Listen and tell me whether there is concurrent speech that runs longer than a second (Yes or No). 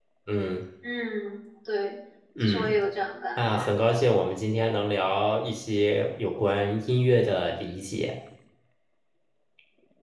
No